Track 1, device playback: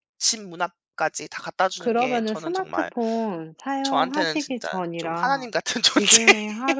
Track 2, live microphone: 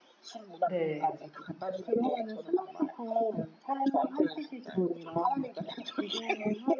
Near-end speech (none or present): present